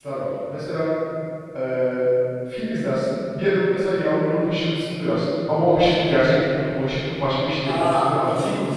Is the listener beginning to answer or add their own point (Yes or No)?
Yes